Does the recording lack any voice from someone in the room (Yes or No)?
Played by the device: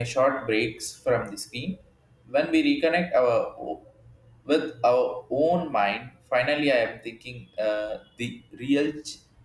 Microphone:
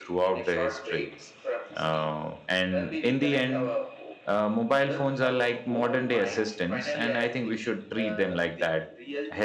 No